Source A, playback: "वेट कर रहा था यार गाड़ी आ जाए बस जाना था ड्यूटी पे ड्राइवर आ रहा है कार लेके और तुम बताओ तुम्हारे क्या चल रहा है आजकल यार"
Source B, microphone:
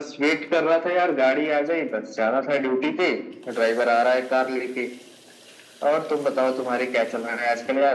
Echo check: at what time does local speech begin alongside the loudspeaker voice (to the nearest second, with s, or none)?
none